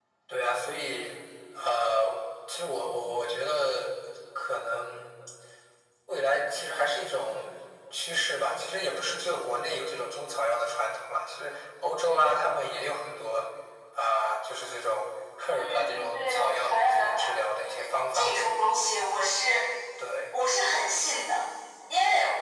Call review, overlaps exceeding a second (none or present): present